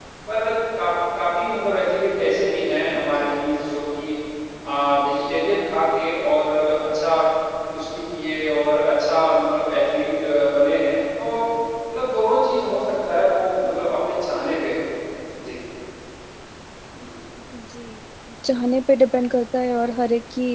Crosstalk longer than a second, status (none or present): none